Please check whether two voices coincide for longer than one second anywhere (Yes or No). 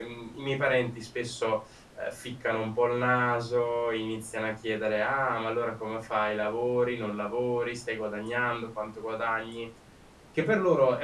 No